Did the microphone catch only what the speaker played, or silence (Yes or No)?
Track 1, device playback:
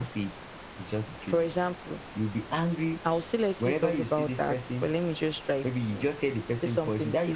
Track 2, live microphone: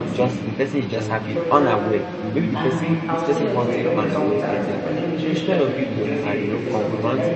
No